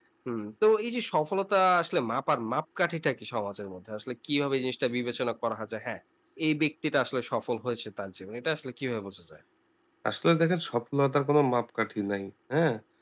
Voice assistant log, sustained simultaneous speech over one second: none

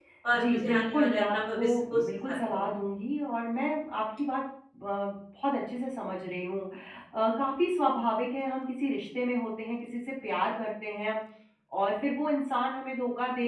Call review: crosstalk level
present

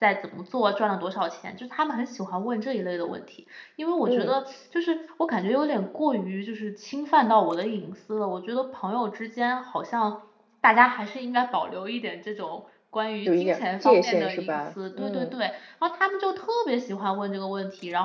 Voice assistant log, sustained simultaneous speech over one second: present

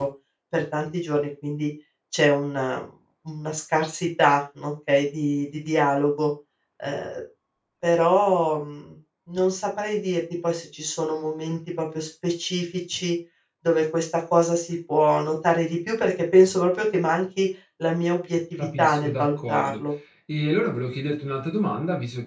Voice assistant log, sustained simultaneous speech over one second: present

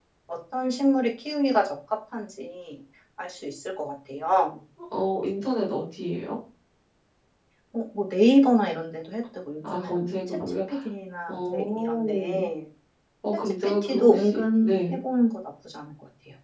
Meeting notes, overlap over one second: present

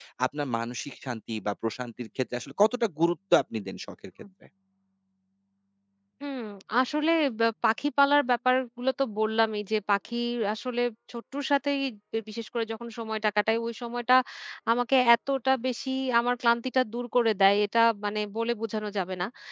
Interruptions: none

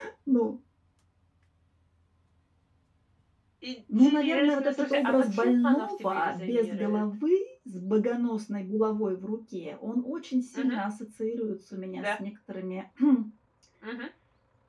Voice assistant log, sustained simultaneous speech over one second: present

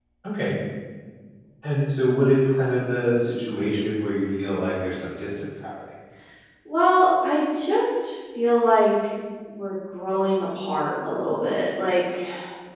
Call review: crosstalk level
none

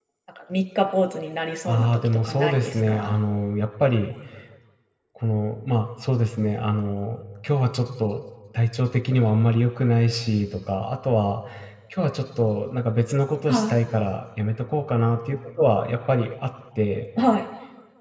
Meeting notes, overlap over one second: present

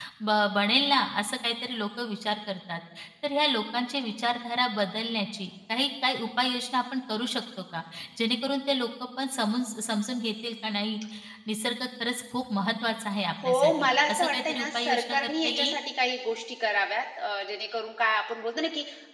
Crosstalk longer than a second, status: present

